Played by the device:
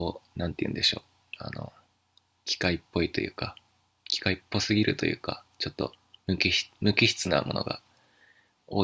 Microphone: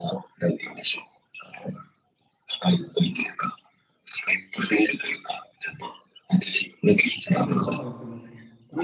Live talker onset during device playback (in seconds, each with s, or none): 7.3 s